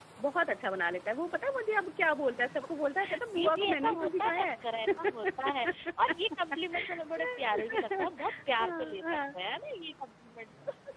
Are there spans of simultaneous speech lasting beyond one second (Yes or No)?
Yes